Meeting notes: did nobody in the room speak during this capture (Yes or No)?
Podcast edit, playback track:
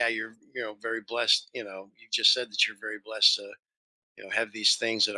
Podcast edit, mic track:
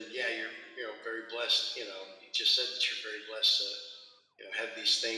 Yes